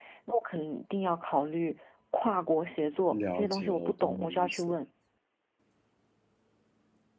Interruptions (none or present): present